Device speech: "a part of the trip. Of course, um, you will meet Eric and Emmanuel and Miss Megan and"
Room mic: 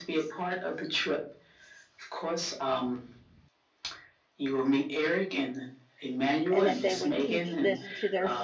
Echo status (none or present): present